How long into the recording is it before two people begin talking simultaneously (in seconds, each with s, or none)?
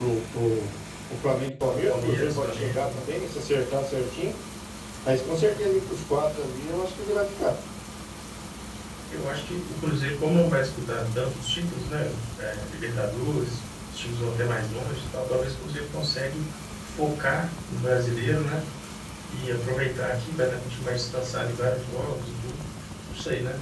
1.6 s